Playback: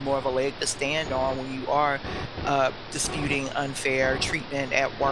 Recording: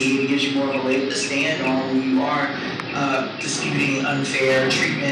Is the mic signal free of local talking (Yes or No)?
Yes